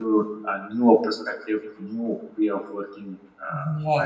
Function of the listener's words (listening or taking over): taking over